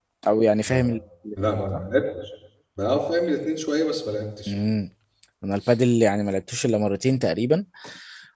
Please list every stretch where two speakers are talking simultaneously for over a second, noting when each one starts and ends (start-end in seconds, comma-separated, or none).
none